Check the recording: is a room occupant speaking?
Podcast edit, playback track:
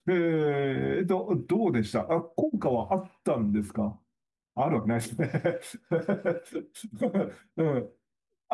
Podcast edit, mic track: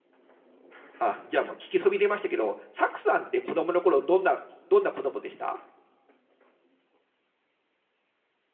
Yes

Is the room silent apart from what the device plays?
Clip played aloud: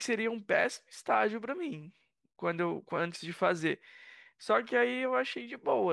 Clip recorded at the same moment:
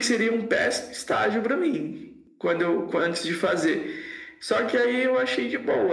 Yes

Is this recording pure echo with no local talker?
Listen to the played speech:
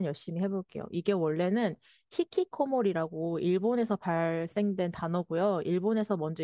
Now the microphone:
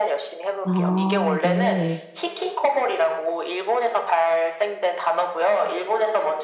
No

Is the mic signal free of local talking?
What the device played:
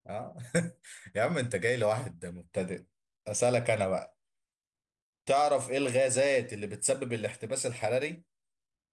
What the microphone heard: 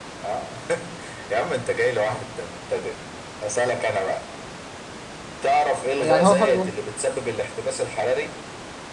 No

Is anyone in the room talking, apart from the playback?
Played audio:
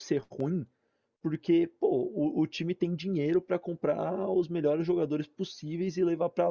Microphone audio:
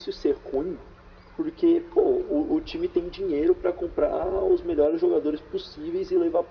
No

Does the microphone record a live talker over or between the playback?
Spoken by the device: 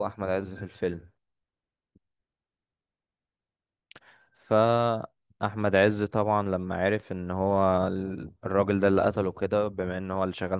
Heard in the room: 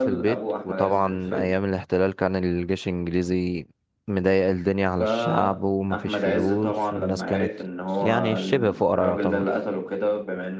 Yes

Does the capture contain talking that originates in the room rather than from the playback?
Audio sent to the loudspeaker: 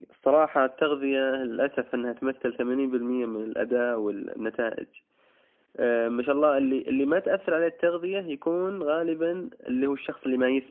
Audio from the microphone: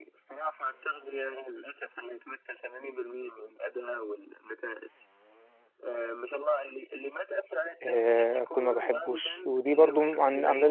Yes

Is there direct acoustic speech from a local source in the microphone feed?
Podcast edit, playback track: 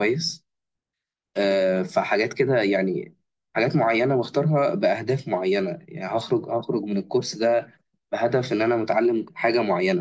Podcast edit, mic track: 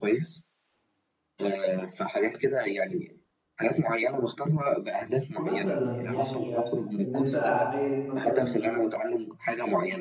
Yes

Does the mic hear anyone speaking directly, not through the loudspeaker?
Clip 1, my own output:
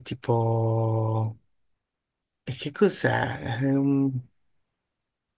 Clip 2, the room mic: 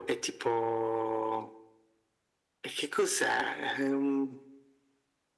No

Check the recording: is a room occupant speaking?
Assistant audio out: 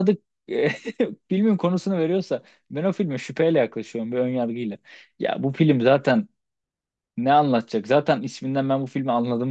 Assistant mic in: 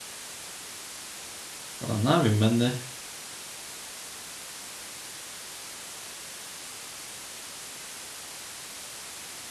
Yes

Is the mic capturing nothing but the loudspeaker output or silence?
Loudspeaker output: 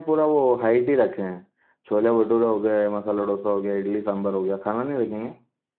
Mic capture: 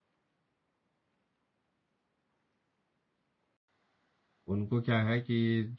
No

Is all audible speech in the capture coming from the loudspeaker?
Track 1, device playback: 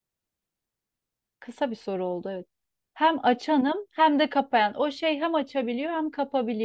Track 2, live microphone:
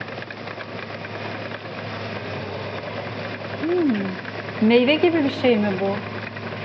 No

